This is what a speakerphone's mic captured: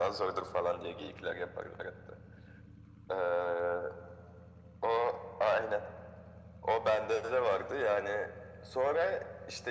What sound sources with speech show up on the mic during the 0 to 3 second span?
echo only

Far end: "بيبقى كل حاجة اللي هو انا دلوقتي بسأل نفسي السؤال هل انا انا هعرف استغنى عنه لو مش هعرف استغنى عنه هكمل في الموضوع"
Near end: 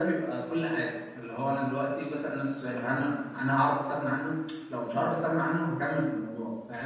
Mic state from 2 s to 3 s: echo only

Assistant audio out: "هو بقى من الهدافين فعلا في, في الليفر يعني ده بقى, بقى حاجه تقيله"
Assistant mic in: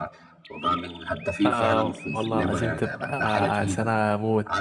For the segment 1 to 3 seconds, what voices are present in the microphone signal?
both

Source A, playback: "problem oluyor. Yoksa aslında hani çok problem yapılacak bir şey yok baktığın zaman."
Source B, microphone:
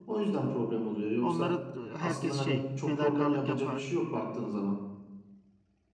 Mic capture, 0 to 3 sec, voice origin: both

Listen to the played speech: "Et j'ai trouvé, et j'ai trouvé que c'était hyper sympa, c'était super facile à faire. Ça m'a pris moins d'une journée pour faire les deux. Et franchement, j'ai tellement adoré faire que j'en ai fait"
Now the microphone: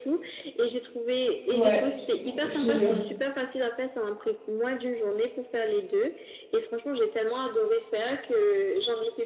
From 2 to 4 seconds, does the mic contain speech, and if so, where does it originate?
both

